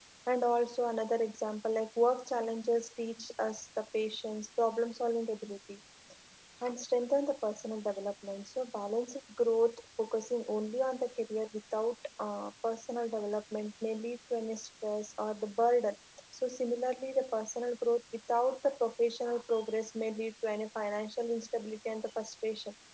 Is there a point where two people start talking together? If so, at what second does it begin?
none

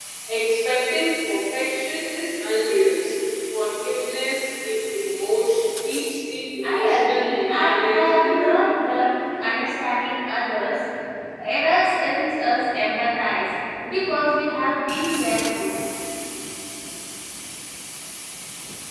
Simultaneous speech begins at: 7 s

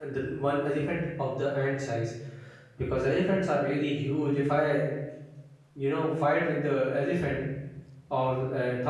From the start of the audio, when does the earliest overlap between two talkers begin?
none

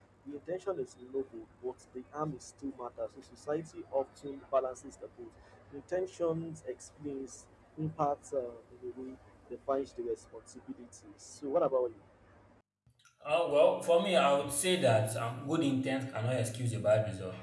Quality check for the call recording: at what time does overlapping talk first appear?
none

